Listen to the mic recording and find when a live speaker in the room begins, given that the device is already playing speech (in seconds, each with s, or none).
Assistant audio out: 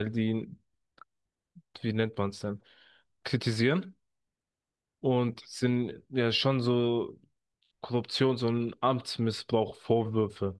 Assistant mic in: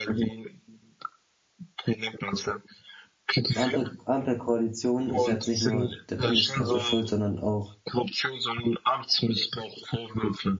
3.5 s